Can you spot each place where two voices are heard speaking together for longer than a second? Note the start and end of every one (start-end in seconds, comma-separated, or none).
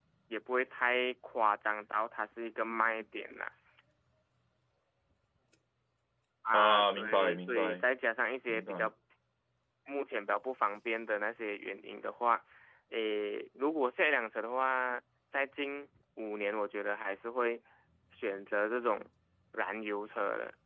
6.5-7.8